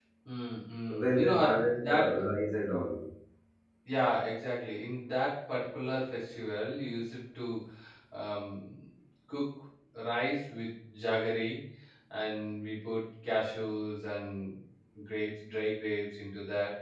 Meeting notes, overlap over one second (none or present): present